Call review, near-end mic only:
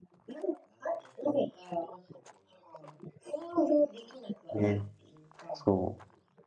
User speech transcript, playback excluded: う。ね、そ

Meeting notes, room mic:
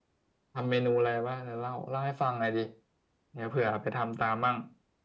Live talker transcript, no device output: none

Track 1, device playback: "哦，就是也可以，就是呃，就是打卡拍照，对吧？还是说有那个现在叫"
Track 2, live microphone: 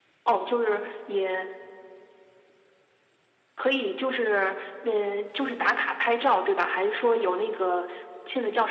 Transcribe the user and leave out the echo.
none

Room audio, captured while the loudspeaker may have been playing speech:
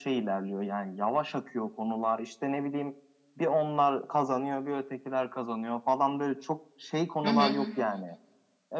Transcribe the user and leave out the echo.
Hı hı.

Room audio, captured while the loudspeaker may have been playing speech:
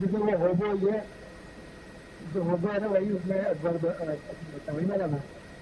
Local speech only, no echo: none

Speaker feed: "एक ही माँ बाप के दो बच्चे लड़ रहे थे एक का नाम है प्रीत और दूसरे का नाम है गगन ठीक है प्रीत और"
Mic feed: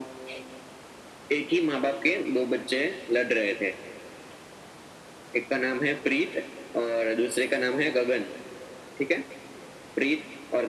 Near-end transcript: none

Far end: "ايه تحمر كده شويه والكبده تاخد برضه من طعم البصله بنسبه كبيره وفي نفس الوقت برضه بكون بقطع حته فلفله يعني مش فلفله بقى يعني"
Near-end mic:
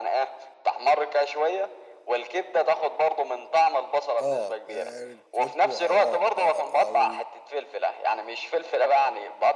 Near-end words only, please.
اه ريتريتو او اه اه او

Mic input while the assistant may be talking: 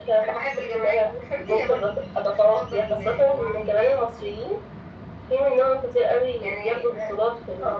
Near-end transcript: none

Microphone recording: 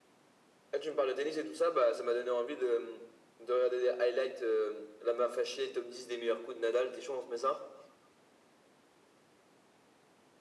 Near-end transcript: none

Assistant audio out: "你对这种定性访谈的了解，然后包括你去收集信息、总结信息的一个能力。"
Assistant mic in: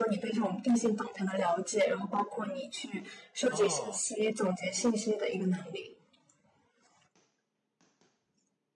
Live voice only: 哦，

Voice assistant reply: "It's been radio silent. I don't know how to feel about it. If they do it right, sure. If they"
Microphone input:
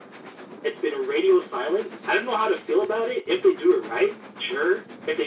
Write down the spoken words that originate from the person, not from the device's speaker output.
none

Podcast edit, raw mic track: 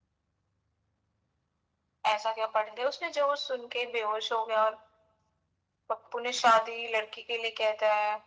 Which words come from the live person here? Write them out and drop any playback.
none

